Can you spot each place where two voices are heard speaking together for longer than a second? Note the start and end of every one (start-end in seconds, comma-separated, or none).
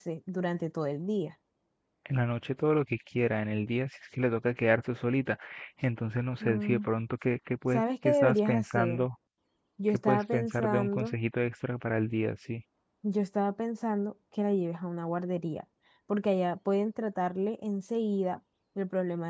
7.7-9.0, 9.9-11.2